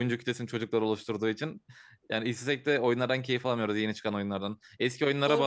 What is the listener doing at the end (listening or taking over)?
listening